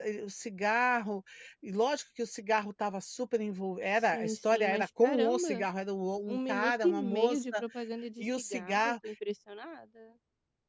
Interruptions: present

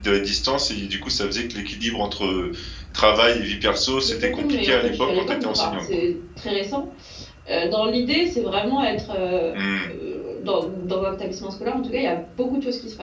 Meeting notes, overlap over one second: present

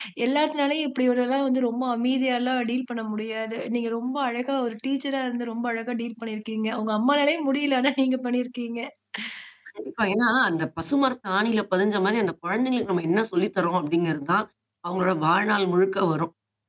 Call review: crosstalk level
none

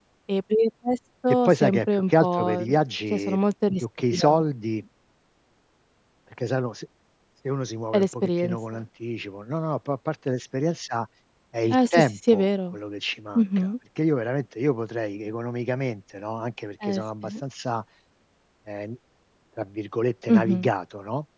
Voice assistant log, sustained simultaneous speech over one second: present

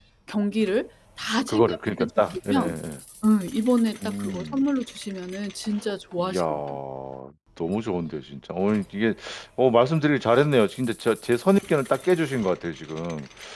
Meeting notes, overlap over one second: present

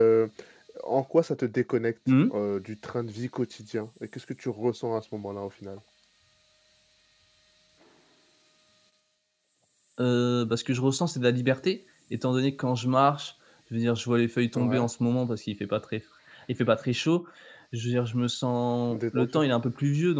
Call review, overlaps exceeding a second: none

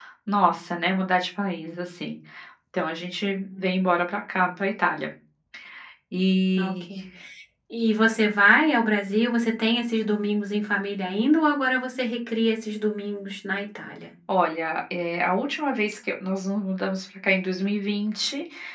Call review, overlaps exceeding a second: none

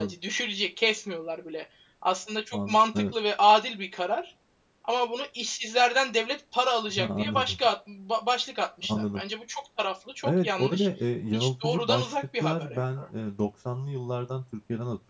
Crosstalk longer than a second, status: present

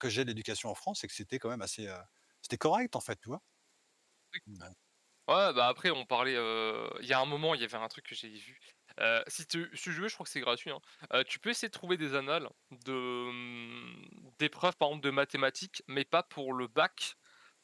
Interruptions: none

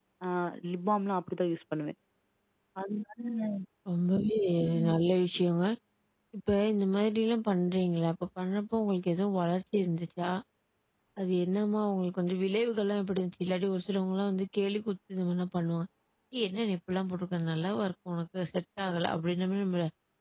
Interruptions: none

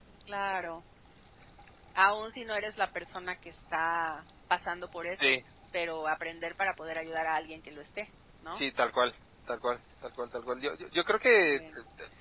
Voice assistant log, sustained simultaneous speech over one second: none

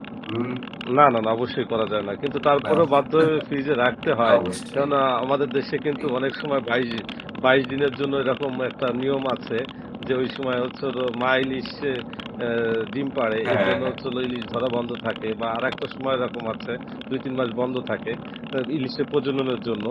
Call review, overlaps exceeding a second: none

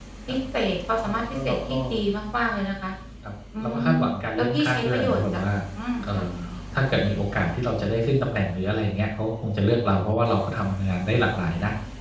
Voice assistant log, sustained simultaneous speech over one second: present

